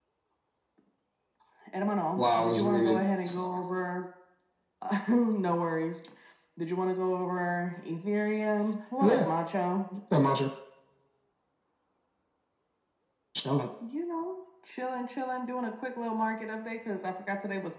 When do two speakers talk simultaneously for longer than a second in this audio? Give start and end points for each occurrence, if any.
2.2-3.5

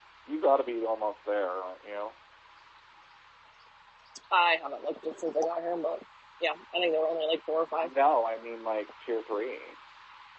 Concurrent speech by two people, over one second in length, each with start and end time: none

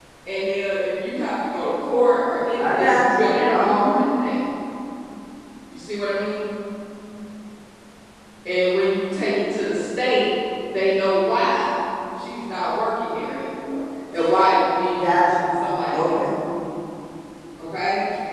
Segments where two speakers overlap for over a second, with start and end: 2.6-4.0

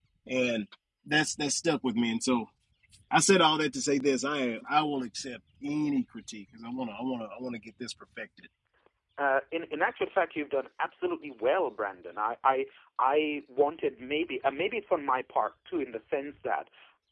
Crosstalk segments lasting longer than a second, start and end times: none

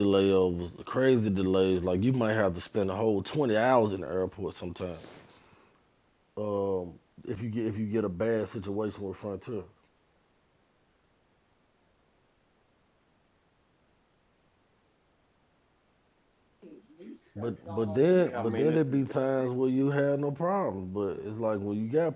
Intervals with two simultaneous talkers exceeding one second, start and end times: 17.4-19.0

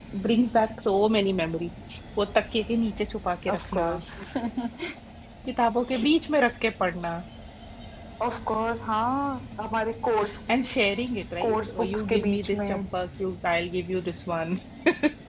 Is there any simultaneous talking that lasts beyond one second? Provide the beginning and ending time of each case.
11.4-12.8

